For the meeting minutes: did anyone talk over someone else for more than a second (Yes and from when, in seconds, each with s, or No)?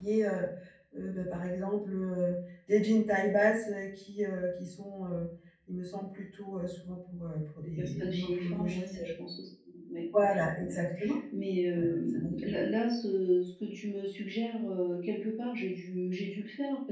Yes, from 7.6 s